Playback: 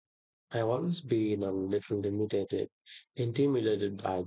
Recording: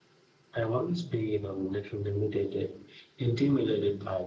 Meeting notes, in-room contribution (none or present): none